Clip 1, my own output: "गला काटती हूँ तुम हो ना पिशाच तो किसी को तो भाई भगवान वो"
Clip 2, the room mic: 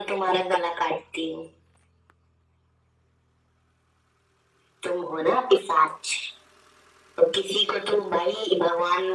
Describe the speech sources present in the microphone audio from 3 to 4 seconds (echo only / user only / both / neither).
neither